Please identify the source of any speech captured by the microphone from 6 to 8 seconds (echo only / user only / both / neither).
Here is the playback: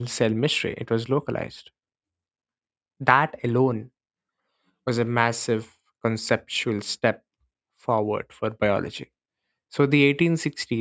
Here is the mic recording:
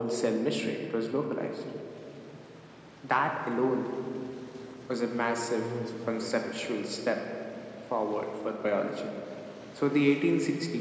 both